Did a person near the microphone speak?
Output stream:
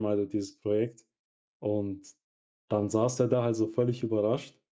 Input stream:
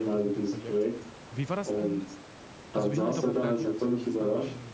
Yes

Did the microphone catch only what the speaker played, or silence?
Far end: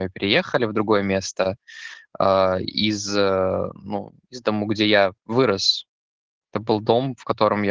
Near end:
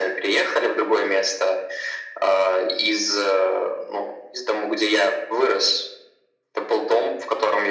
Yes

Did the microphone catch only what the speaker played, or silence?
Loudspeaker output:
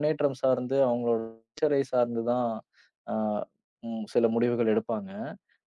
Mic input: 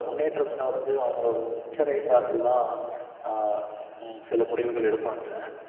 Yes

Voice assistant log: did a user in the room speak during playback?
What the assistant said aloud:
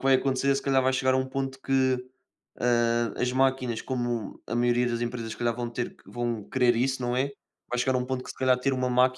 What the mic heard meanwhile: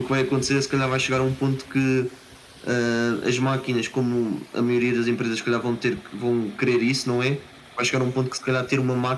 No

